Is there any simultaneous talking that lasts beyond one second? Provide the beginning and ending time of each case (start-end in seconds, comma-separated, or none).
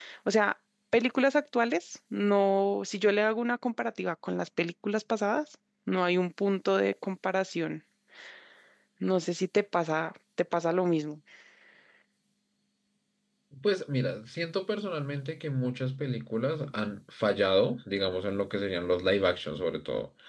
none